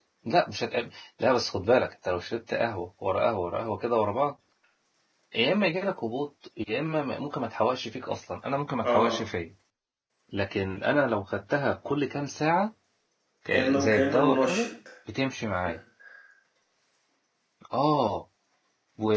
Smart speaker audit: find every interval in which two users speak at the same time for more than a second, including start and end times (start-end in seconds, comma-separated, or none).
13.5-14.7